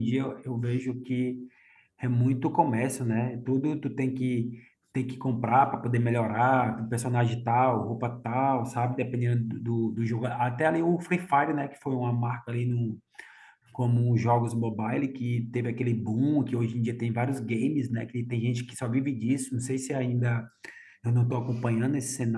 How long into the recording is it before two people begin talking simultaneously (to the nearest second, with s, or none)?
none